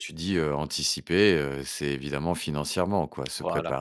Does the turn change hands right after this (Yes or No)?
No